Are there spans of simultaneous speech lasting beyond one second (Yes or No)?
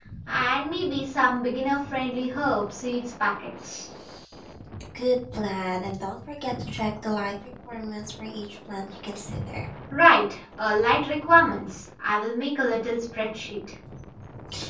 No